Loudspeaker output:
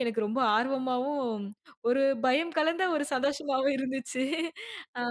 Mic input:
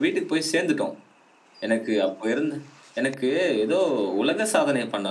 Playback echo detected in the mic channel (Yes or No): No